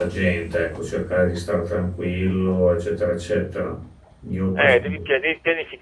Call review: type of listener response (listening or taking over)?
taking over